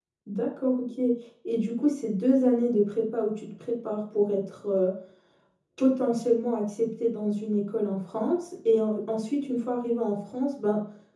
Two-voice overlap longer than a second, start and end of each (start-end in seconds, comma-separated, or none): none